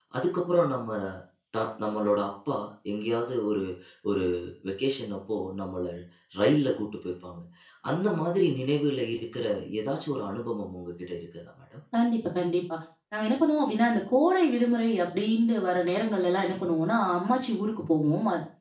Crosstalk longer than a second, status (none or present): none